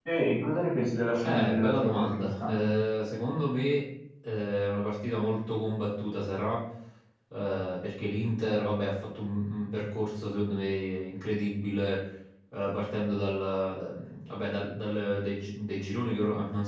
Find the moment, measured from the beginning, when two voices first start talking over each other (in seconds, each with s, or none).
1.2 s